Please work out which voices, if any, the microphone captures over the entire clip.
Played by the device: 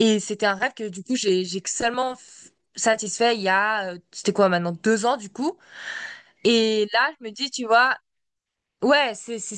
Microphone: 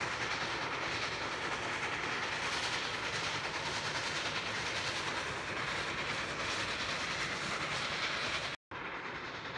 neither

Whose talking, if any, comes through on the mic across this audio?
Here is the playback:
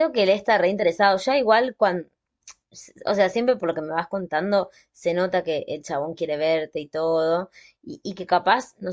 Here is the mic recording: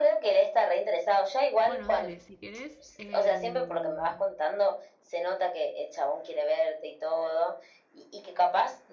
both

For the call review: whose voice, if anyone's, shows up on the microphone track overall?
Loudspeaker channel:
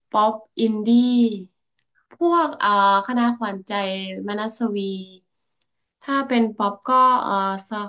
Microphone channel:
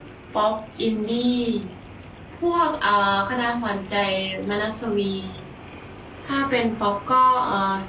echo only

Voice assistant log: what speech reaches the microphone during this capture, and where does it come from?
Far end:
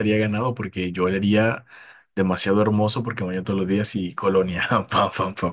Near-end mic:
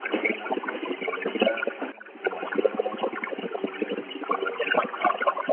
echo only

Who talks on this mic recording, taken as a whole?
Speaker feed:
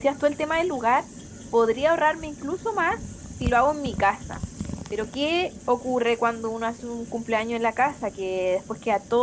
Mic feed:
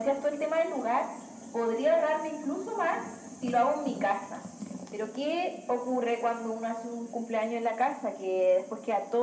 echo only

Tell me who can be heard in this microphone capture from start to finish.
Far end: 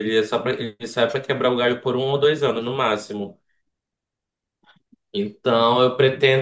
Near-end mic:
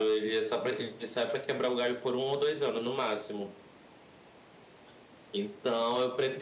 echo only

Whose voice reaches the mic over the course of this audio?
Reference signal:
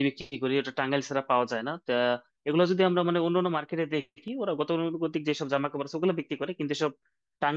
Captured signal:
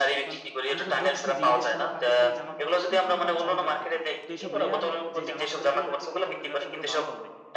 both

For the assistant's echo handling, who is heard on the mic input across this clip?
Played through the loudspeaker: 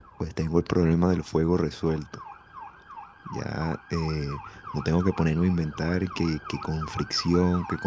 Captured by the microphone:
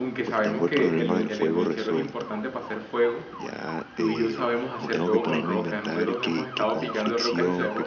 both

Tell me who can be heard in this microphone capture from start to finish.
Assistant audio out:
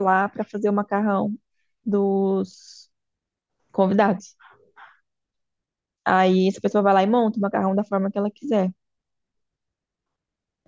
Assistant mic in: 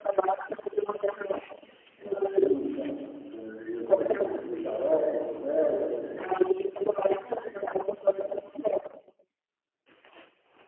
both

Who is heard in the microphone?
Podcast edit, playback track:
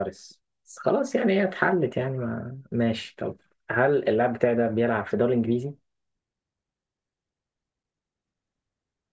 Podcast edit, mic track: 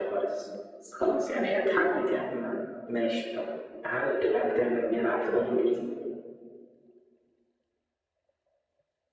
echo only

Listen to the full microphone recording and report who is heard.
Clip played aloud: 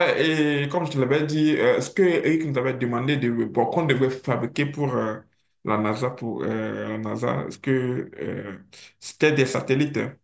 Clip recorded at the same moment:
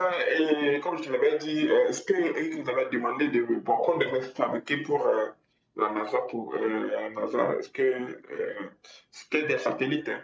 echo only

